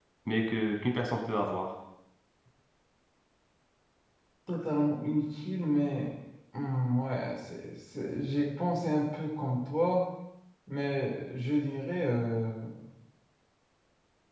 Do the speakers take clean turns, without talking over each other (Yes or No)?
Yes